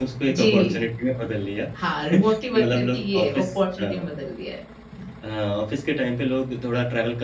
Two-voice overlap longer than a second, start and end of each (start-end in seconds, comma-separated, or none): 2.6-4.0